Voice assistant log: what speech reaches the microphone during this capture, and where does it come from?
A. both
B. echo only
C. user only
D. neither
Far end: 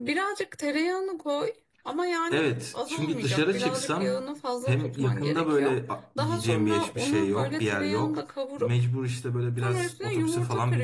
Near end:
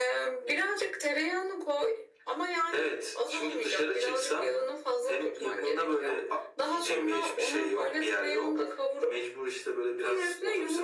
B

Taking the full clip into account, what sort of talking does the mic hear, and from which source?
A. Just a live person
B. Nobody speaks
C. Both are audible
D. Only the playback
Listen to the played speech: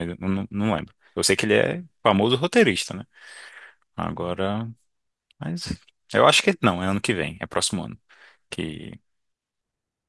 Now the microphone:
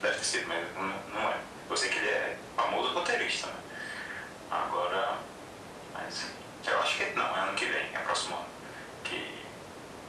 D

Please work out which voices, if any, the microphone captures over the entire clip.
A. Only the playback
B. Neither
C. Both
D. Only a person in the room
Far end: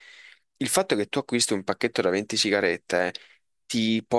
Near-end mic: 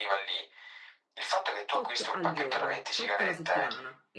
C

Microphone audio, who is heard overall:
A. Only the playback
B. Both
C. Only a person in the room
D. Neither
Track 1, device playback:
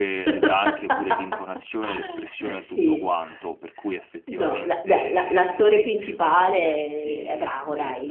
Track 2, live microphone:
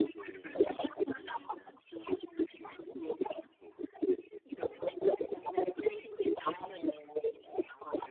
A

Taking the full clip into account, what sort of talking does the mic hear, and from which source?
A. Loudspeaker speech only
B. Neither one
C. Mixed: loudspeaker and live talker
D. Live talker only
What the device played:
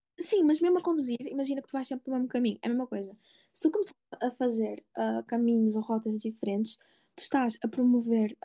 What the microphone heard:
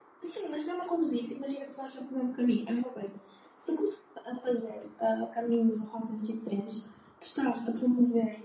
A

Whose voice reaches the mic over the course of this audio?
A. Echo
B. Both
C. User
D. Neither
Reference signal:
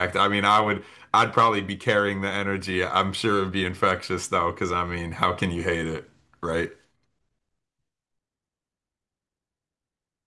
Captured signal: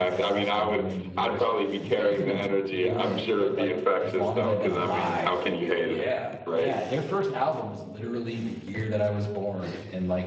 B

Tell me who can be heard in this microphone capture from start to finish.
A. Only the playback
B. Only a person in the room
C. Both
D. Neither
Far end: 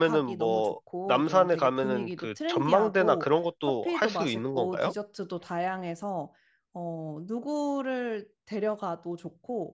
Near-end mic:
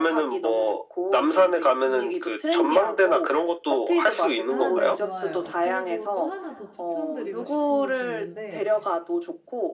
C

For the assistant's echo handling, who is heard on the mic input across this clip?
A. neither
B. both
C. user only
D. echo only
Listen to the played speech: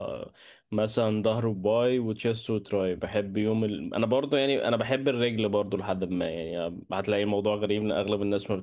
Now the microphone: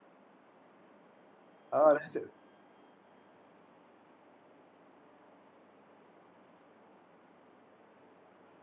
C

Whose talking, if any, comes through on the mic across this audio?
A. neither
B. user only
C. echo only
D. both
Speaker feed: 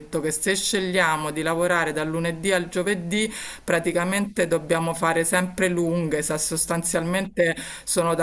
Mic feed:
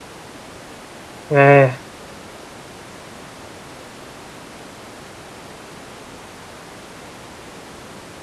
B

